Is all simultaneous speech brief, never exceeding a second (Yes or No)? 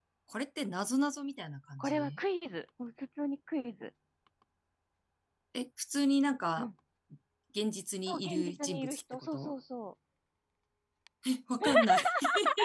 No